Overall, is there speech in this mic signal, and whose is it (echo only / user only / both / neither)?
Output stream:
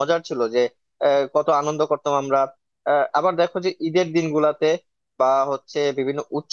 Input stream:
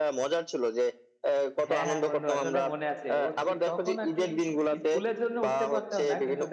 both